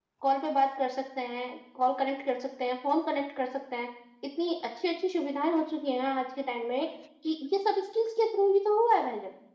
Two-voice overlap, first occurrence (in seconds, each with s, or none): none